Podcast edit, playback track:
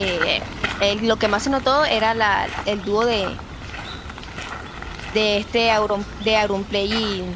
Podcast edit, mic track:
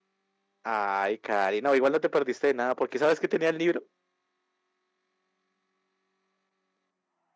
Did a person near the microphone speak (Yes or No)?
Yes